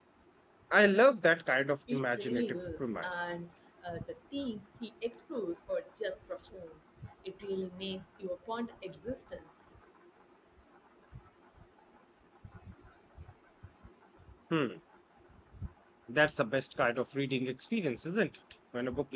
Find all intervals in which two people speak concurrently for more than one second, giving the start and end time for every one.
1.9-3.3

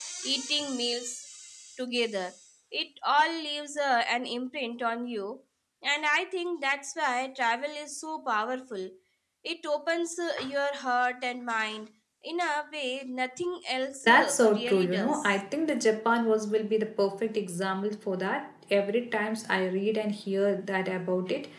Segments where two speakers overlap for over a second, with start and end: 14.1-15.4

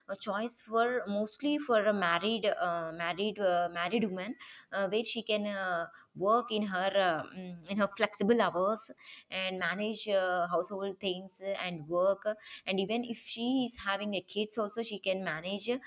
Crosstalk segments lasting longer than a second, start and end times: none

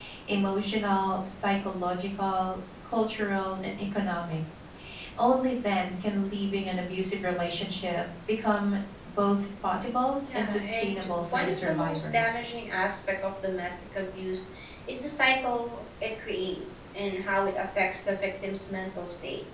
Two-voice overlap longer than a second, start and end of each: 10.3-12.2

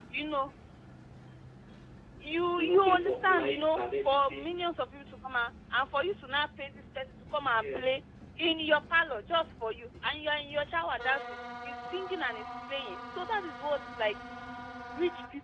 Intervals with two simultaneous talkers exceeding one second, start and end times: 2.6-4.6

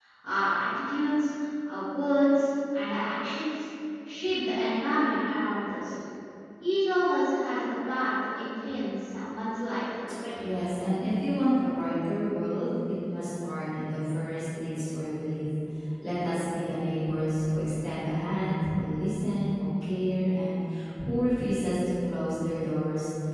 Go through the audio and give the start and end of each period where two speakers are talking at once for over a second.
none

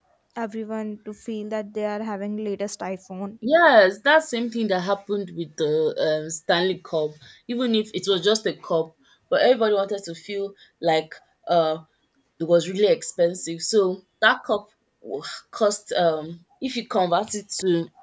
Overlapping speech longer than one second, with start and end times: none

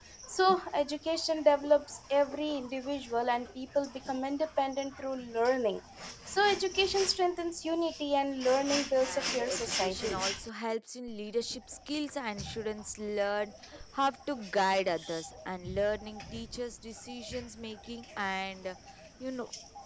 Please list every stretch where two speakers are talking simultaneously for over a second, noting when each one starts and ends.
9.0-10.2

